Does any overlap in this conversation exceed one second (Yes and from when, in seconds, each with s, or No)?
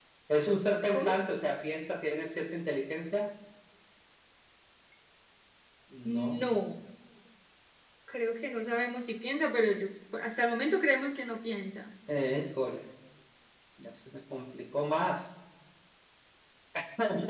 No